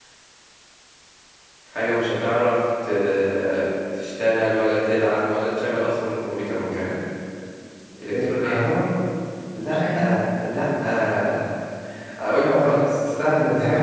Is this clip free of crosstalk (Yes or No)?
No